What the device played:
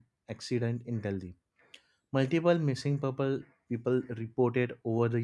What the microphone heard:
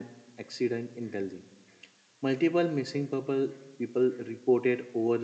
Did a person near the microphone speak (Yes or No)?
No